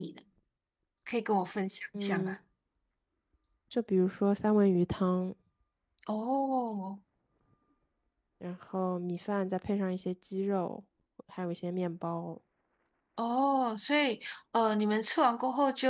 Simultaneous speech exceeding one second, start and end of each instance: none

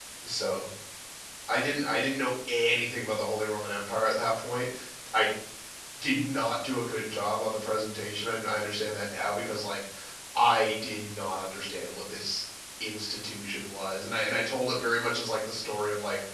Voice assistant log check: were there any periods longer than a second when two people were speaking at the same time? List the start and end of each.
none

